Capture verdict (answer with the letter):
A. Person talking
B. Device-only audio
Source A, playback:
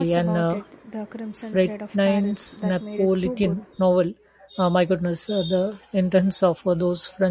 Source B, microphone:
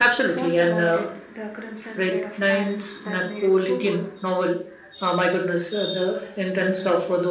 B